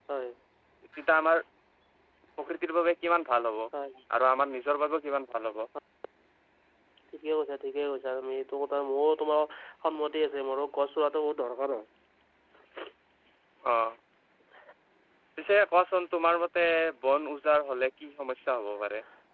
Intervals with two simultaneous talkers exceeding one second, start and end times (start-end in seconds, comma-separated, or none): none